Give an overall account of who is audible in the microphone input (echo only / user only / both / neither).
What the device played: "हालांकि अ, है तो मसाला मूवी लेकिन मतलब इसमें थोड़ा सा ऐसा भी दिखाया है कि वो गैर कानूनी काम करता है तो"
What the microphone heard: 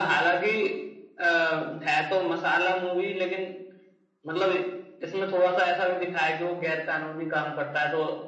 echo only